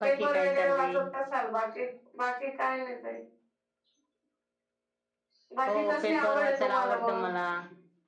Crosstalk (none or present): present